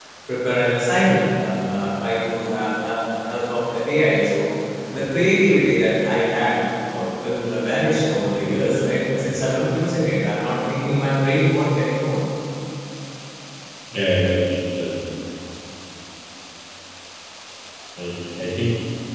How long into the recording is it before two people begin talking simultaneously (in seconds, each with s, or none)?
none